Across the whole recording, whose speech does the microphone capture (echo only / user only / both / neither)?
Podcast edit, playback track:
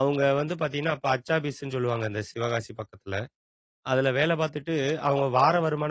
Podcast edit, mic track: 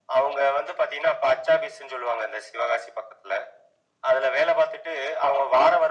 echo only